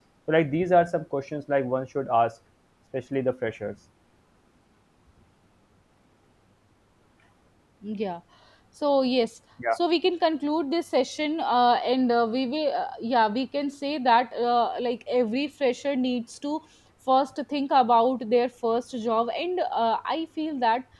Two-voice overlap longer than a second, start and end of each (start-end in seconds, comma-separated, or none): none